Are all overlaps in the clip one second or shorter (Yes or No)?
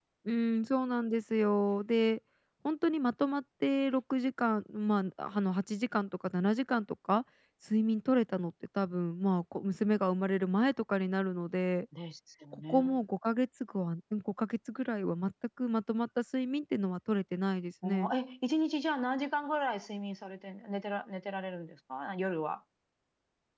Yes